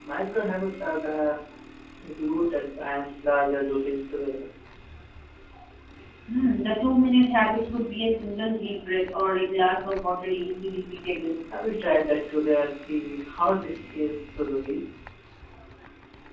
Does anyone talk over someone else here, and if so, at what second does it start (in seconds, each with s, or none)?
none